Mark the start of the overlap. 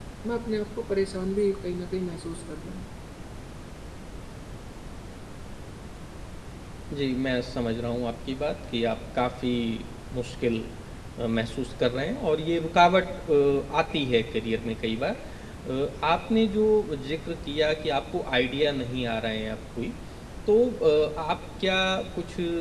none

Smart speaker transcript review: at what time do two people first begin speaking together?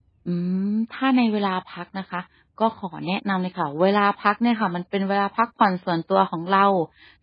none

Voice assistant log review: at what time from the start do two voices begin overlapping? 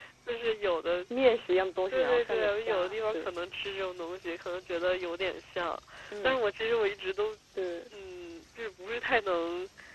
1.9 s

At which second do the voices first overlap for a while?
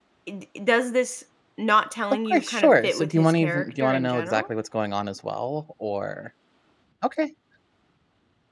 2.1 s

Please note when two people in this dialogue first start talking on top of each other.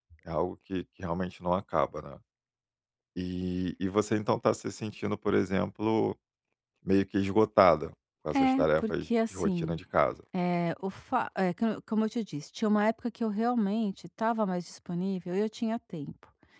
8.3 s

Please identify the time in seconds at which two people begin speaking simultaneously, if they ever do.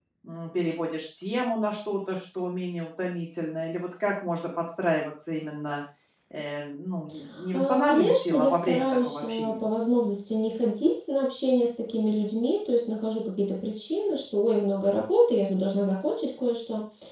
7.5 s

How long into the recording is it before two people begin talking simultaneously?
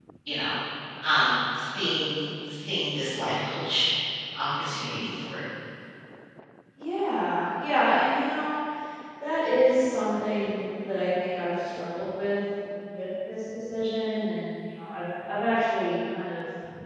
none

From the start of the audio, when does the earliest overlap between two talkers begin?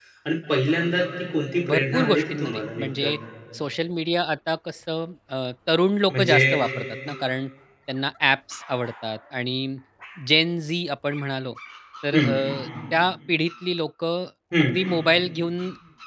1.7 s

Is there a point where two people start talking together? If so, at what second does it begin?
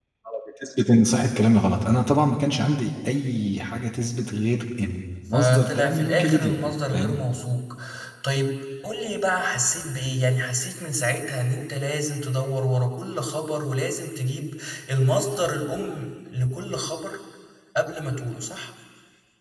5.3 s

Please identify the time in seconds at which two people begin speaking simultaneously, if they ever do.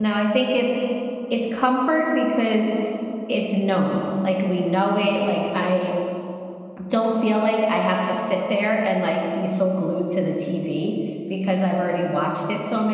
none

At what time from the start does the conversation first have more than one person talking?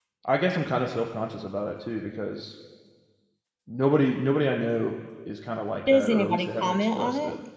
5.9 s

